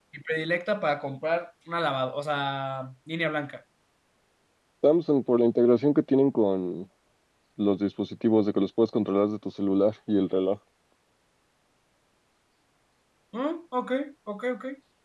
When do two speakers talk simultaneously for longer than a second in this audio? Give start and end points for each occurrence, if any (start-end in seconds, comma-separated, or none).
none